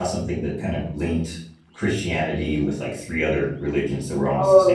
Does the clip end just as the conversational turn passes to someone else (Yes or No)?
Yes